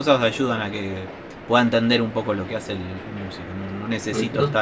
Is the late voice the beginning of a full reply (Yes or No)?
No